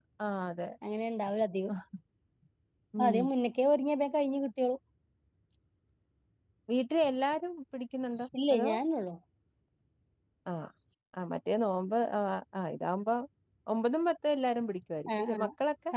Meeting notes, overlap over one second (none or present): none